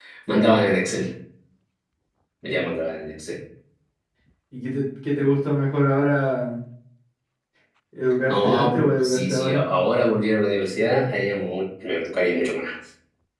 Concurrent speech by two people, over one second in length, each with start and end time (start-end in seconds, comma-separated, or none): 8.3-9.6